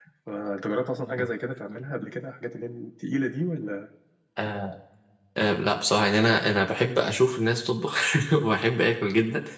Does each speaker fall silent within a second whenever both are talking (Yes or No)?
Yes